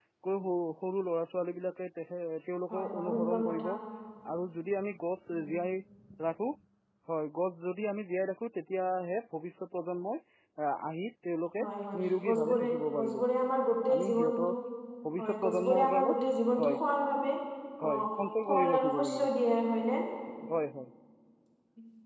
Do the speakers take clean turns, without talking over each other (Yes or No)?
No